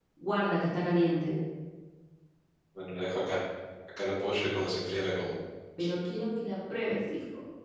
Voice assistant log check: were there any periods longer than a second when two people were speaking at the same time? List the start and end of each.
none

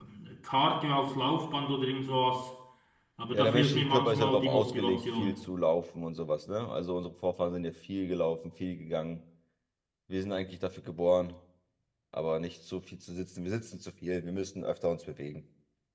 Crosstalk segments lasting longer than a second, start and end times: 3.3-5.3

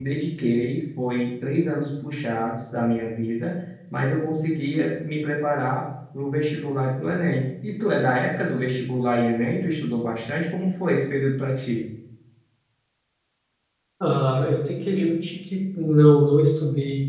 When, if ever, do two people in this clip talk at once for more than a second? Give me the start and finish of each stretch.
none

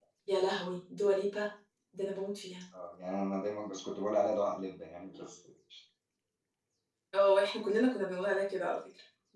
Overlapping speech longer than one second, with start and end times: none

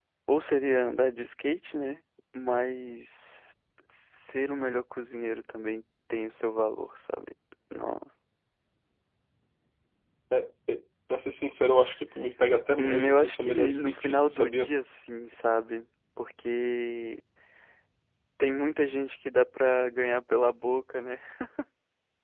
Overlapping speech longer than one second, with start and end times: 12.8-14.7

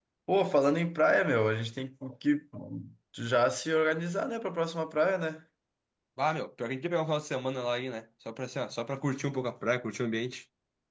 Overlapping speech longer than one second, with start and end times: none

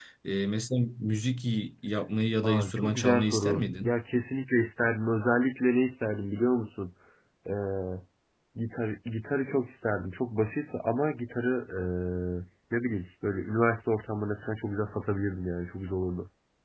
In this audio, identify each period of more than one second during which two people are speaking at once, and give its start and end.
2.4-3.9

